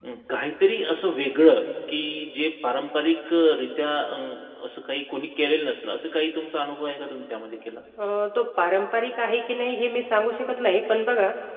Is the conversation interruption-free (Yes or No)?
Yes